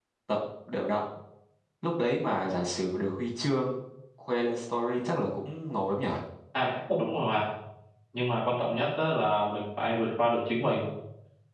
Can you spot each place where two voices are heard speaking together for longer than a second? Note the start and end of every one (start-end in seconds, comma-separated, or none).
none